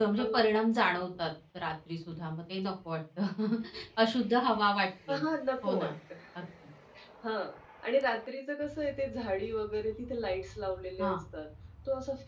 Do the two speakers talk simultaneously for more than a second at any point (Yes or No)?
No